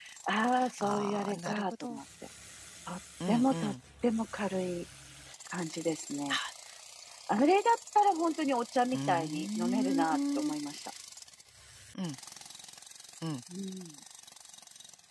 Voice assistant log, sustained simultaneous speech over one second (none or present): present